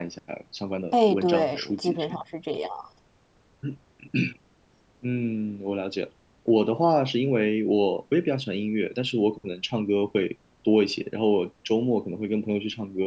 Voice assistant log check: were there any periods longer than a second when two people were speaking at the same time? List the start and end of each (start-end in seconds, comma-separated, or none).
0.9-2.2